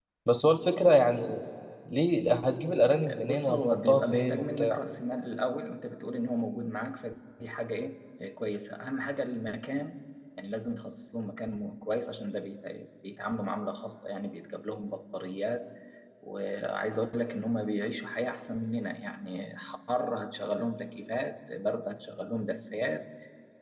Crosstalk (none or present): present